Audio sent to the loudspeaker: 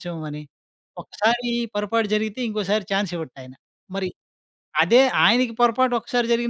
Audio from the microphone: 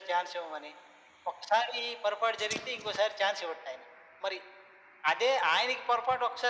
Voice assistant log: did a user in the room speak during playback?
No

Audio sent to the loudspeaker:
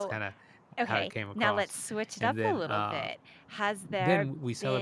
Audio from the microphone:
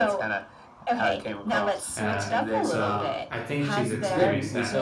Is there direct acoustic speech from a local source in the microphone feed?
Yes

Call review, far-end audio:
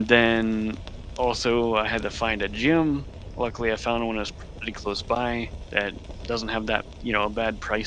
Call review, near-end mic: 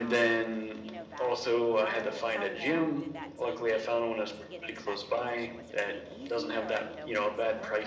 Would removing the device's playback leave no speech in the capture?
No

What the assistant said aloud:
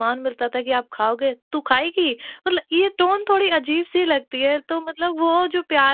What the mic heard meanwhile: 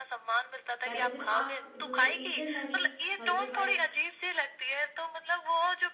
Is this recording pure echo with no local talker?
No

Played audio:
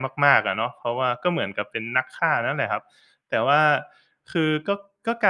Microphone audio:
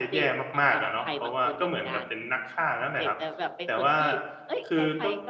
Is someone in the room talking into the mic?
Yes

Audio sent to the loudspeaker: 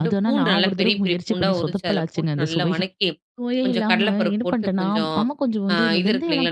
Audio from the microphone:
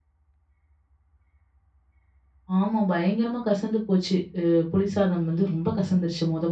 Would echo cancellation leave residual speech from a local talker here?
Yes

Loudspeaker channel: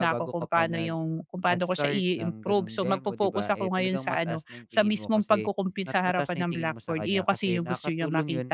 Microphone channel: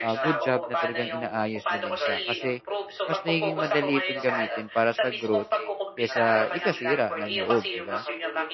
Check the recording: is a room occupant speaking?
Yes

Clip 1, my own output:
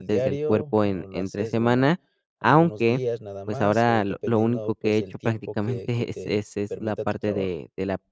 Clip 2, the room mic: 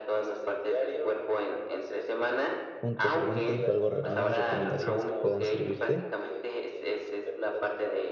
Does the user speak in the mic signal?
Yes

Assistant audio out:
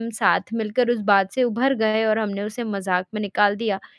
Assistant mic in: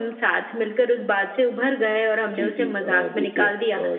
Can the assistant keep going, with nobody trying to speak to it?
No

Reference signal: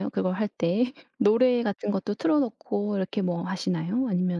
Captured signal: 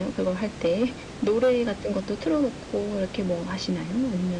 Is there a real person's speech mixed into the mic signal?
No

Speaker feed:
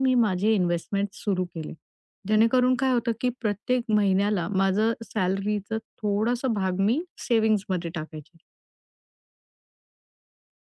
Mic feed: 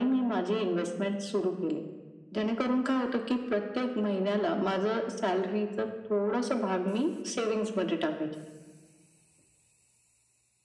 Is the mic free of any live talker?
Yes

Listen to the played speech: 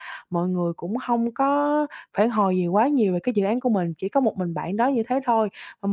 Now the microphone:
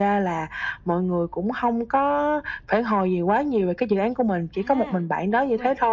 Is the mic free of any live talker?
No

